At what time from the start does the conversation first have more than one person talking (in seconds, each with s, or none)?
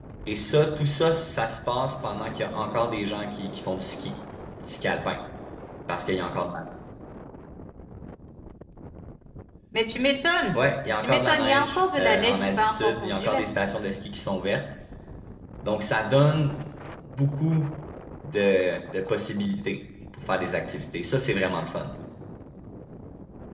11.0 s